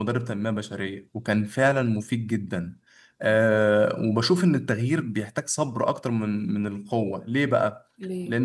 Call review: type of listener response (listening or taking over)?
listening